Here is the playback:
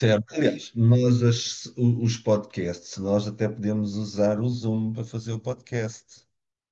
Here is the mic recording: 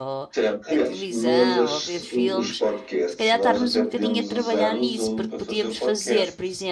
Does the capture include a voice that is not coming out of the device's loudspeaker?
Yes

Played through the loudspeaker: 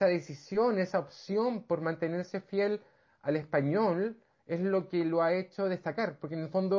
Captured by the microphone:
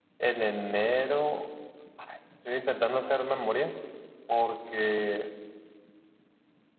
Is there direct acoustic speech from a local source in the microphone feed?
Yes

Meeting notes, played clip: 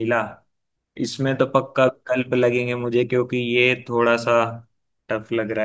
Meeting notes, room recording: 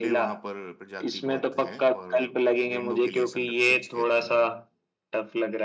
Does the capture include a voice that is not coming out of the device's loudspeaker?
Yes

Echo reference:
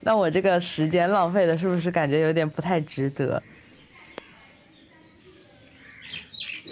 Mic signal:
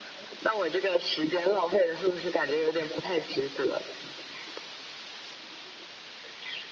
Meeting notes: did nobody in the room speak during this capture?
Yes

